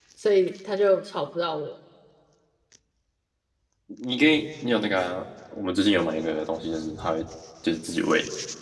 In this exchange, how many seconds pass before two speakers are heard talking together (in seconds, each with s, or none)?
none